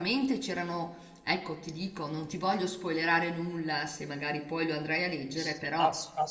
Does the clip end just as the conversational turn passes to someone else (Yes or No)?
Yes